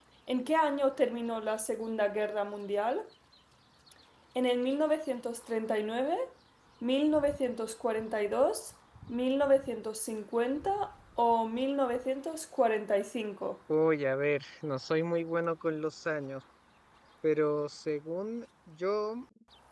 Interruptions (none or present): none